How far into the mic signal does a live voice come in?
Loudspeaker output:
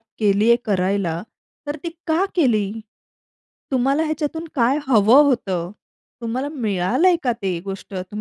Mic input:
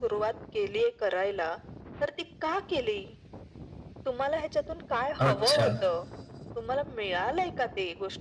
5.2 s

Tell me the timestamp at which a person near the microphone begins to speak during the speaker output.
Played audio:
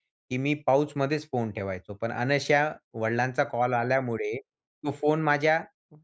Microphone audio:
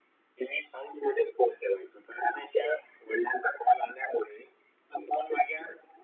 none

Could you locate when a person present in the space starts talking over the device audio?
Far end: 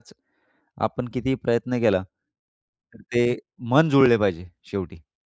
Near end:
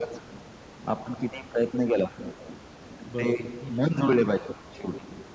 3.1 s

